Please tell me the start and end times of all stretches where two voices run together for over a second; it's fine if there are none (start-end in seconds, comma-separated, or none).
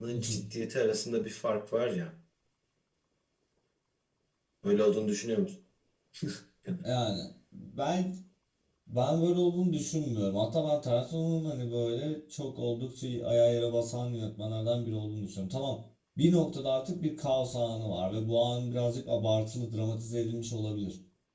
none